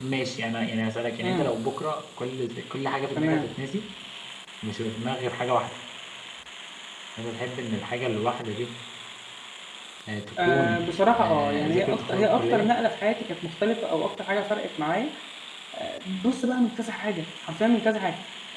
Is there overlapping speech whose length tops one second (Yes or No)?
Yes